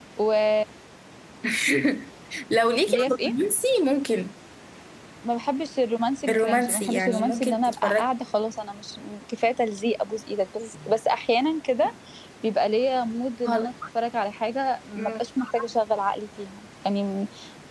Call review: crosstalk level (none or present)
present